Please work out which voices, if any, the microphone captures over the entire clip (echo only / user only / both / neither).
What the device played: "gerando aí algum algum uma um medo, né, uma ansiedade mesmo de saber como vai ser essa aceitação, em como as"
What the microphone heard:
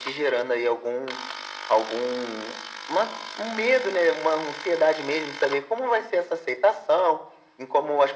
echo only